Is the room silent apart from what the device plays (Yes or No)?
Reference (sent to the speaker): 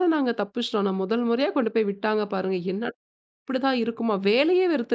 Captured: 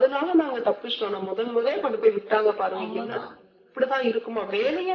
No